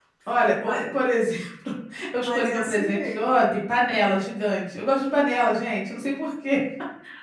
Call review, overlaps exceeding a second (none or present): present